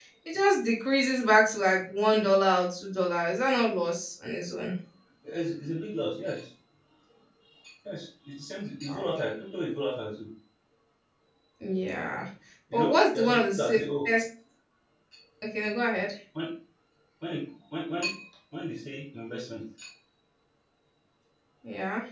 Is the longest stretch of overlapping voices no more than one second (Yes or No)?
No